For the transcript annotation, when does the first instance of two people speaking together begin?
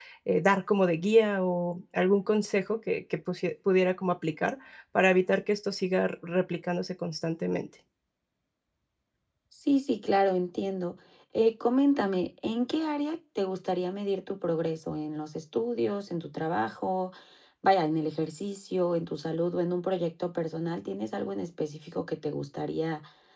none

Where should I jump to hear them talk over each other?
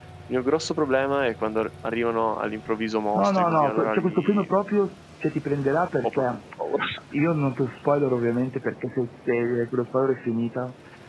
3.1 s

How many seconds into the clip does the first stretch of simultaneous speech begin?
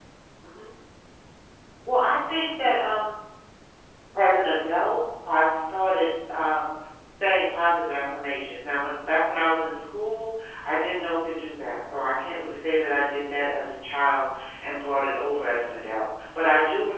none

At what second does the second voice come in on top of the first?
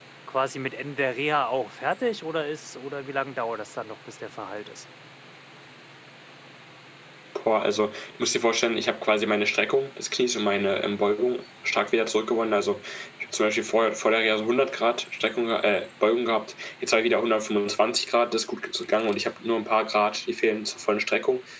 none

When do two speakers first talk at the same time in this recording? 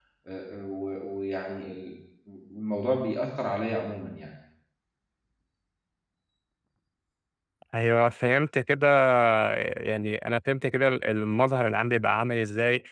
none

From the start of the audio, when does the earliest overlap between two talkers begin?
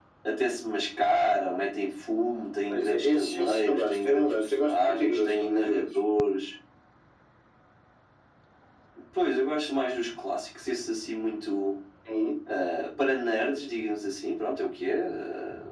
2.7 s

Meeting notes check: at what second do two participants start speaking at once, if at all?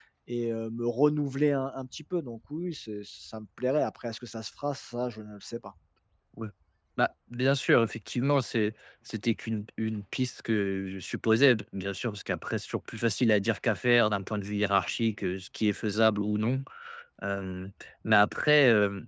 none

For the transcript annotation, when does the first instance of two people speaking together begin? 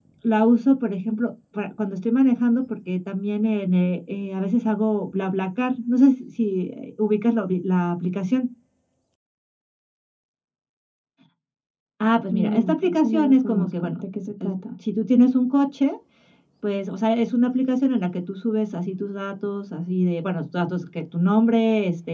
12.3 s

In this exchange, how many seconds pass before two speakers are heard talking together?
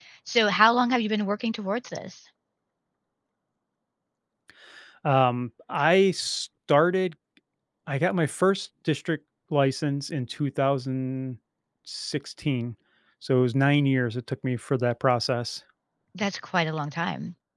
none

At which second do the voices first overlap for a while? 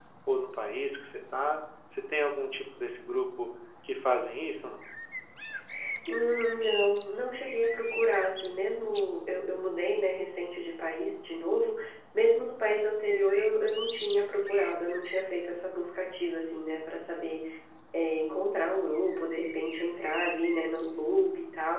none

